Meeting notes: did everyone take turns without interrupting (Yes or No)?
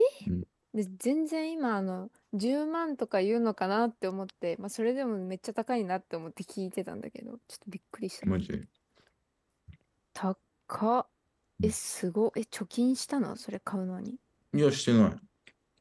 Yes